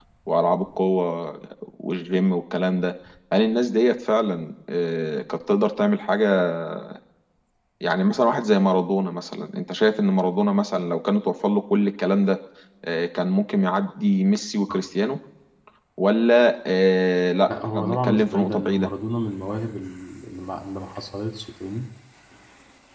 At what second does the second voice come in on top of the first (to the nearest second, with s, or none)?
17 s